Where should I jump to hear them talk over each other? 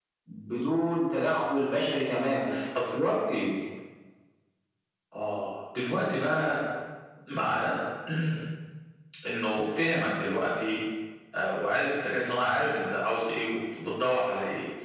none

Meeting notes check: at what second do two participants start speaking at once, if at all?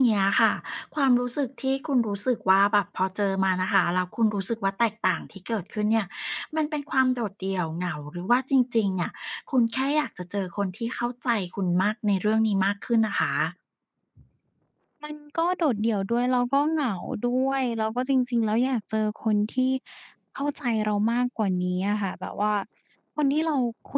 none

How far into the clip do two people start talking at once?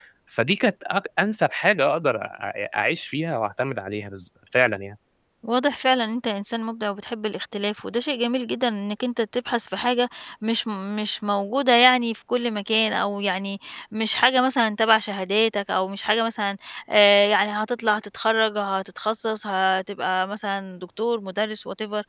none

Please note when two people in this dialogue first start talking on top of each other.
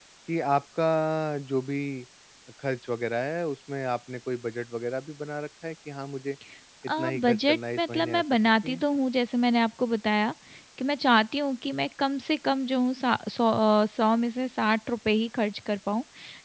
7.0 s

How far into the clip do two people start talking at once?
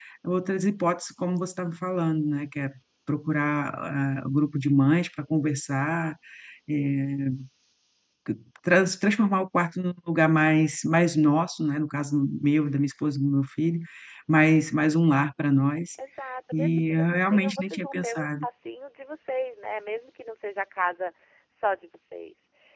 16.5 s

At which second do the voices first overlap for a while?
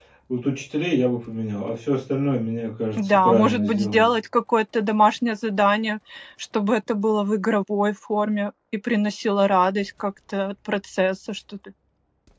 2.9 s

